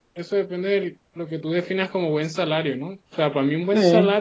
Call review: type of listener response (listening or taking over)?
listening